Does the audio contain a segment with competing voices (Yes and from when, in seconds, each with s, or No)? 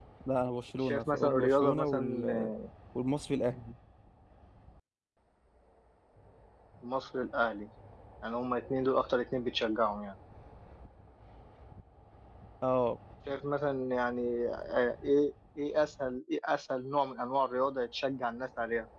Yes, from 0.8 s